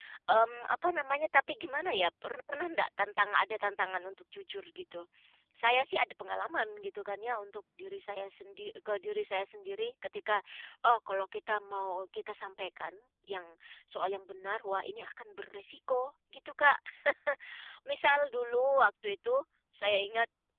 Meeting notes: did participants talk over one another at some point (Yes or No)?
No